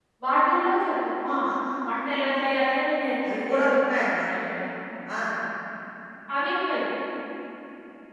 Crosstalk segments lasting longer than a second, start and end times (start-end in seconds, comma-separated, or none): none